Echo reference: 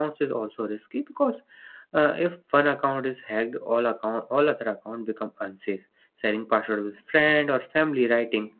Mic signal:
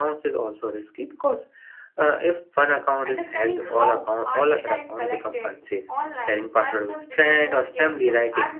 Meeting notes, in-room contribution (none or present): present